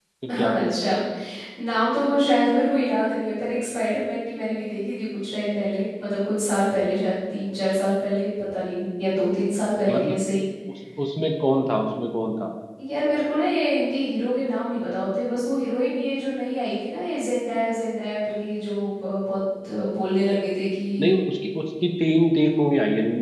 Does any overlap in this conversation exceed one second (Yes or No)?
No